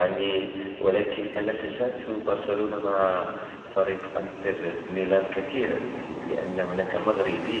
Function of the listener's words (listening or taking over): listening